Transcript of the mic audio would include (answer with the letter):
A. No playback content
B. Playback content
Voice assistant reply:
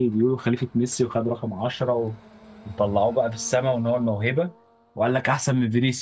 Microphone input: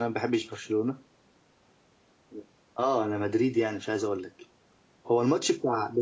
A